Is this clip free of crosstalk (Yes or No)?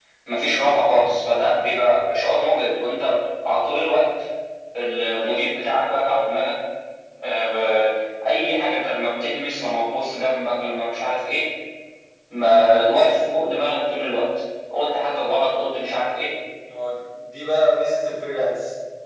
Yes